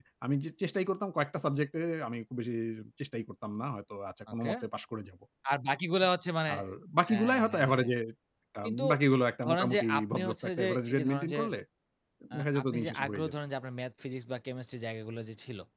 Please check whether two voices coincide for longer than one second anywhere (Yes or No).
Yes